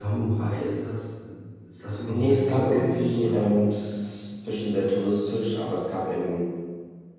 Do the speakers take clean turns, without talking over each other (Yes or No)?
No